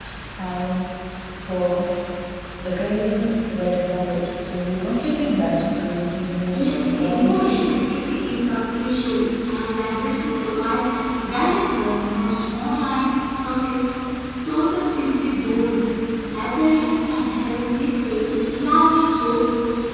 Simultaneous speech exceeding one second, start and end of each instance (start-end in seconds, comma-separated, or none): 6.5-7.7